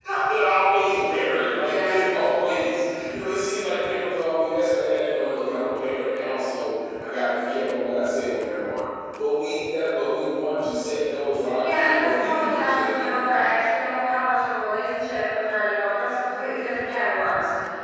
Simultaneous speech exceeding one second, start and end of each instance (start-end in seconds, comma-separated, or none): 11.6-13.4